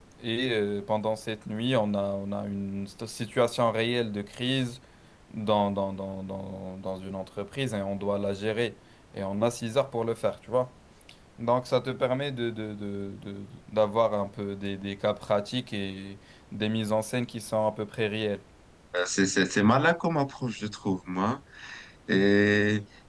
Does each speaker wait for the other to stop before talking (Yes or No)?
Yes